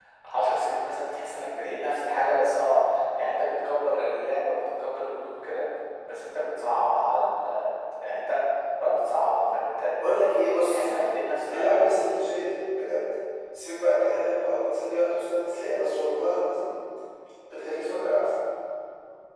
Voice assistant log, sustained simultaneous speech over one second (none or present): none